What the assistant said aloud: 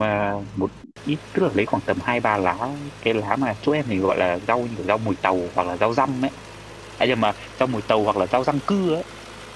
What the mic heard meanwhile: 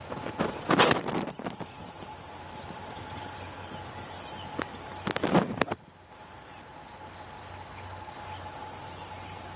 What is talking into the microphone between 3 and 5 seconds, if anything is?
neither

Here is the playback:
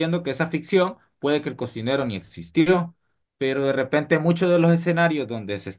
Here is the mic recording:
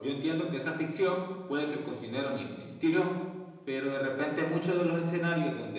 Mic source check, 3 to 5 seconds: echo only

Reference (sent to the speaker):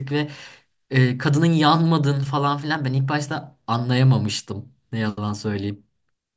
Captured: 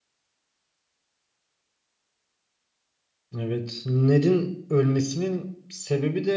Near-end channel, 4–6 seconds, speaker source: user only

